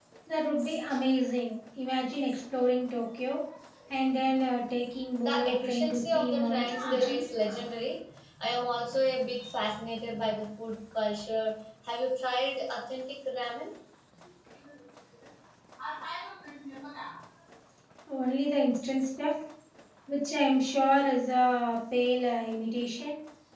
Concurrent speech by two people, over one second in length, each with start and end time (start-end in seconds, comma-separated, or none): 5.2-7.2